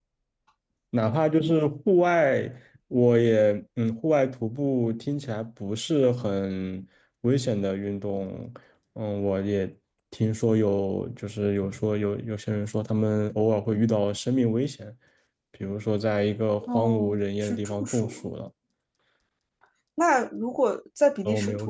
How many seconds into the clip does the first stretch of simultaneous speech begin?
17 s

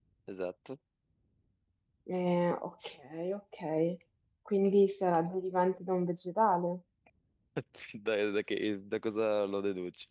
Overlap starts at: none

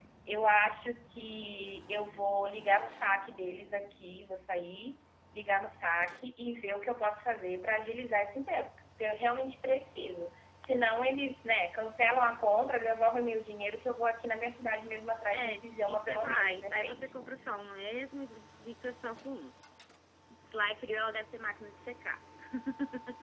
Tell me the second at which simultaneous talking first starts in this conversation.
15 s

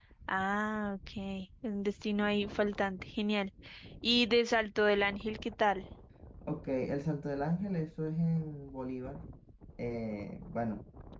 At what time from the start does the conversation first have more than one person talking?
none

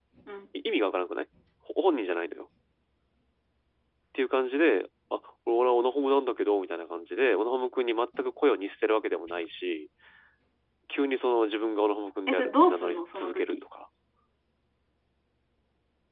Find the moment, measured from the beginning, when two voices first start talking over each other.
12 s

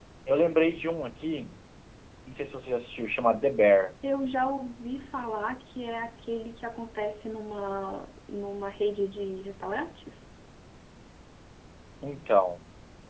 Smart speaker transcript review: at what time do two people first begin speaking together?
none

